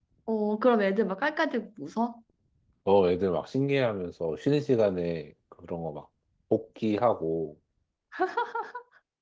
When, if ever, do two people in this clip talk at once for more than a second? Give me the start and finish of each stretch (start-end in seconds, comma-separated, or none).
none